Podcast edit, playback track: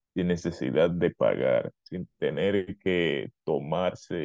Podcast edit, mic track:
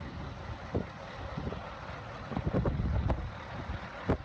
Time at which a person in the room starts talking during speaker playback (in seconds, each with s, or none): none